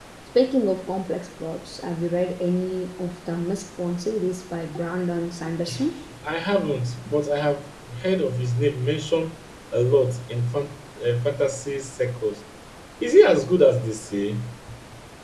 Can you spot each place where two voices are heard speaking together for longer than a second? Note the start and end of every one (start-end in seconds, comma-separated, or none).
none